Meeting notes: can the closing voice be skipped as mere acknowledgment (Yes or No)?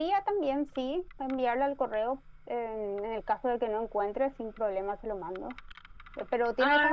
Yes